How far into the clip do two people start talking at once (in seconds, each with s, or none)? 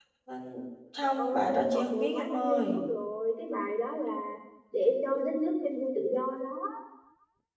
1.0 s